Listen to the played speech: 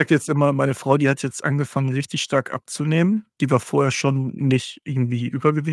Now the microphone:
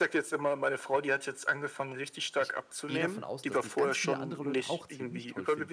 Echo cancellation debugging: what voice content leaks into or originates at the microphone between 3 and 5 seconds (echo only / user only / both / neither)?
both